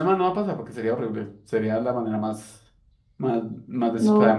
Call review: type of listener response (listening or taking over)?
listening